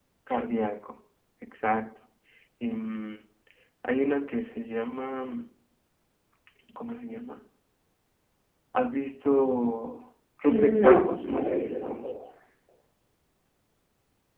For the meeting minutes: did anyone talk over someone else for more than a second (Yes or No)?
Yes